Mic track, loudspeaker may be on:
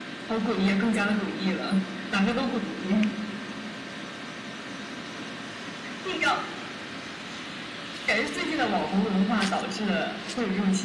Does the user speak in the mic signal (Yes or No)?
No